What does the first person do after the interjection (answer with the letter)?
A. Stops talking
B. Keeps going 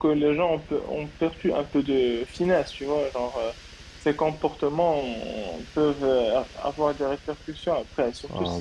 A